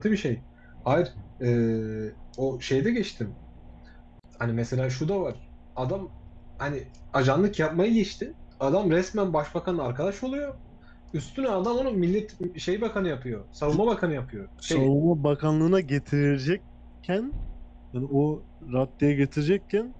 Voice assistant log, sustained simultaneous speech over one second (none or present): none